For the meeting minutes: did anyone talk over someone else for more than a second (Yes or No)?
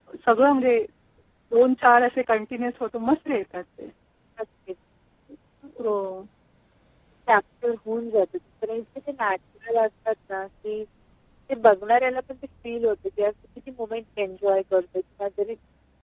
No